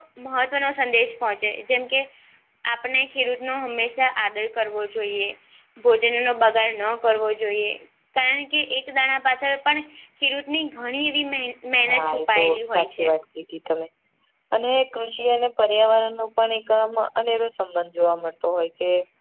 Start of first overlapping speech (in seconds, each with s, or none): 11.7 s